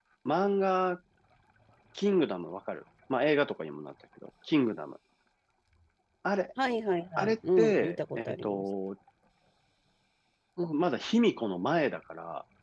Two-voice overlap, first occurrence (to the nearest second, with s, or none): 7 s